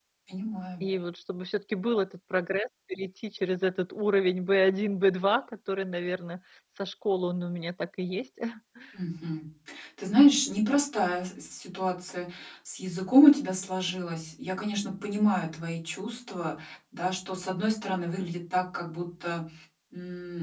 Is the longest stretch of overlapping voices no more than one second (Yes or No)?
Yes